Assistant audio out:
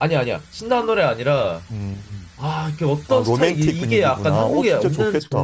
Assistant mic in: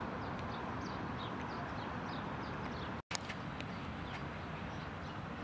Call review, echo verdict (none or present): none